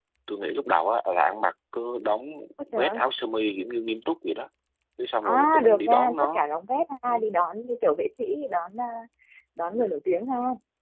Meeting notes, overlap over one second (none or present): present